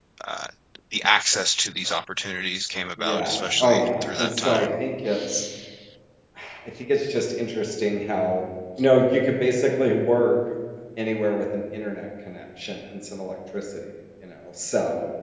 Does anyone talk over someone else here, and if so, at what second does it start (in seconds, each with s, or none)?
3.0 s